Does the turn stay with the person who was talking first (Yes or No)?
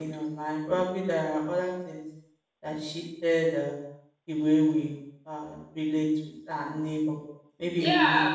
No